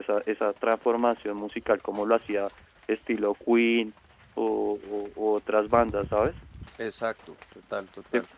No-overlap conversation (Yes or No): Yes